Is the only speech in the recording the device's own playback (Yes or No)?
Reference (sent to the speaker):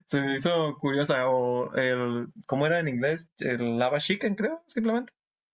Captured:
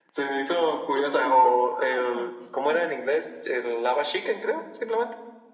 No